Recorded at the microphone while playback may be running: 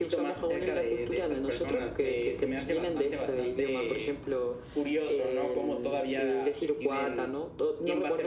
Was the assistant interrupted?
No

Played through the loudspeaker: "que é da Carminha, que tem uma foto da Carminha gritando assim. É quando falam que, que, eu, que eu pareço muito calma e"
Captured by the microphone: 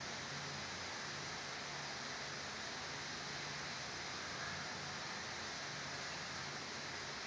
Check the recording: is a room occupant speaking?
No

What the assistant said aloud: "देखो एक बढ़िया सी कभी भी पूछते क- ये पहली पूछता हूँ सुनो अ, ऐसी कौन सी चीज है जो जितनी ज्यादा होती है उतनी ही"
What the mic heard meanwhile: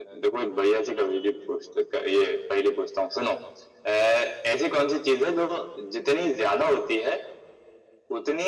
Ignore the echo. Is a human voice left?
No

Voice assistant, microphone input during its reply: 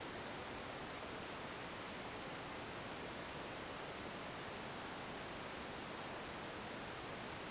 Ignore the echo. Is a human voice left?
No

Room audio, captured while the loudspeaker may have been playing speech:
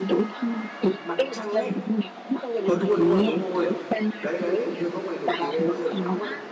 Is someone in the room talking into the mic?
Yes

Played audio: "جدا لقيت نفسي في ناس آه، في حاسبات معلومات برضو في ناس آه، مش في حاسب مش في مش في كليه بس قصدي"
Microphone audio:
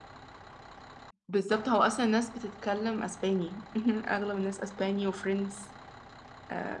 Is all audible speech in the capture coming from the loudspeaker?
No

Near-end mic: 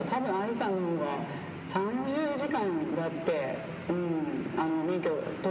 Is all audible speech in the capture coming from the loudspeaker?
Yes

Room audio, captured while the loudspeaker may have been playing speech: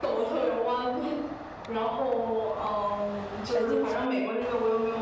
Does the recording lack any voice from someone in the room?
No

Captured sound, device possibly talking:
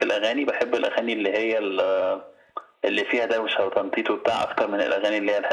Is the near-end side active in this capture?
No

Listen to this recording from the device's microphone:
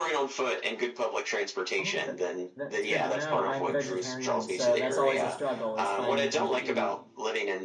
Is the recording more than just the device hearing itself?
Yes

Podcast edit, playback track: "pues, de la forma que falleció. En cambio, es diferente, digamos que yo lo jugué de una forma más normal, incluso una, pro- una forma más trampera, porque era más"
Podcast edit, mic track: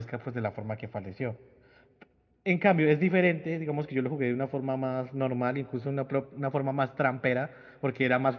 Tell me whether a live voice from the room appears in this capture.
No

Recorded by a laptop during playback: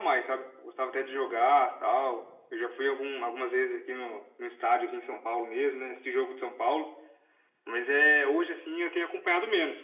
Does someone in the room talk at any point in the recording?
No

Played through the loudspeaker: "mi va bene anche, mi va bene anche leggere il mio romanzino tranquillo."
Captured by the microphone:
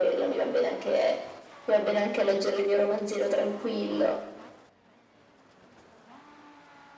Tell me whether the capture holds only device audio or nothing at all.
Yes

